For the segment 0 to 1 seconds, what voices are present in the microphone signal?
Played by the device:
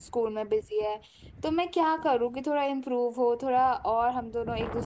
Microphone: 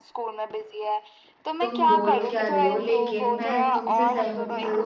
echo only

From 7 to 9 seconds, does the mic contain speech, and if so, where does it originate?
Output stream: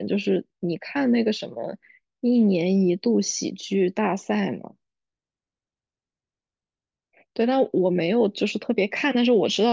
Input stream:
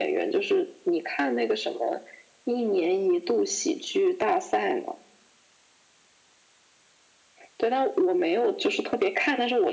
echo only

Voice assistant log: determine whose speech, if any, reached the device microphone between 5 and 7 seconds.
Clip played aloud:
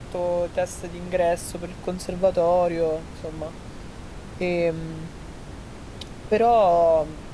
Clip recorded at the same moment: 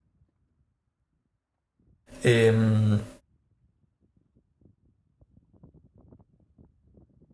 neither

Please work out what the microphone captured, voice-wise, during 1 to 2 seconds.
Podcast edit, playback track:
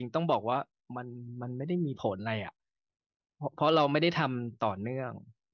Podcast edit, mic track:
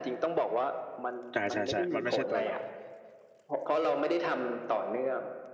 both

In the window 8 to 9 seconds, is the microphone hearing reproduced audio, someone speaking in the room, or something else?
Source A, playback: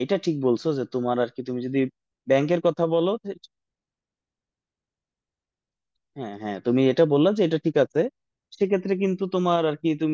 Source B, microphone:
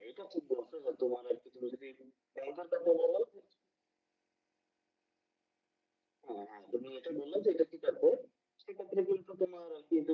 echo only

